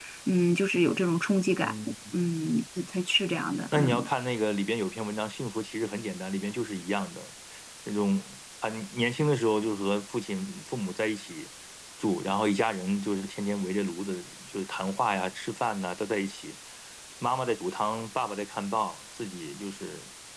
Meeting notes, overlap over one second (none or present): none